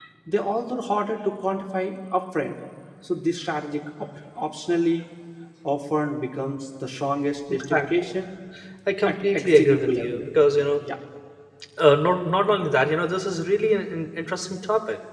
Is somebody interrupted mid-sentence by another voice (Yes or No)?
Yes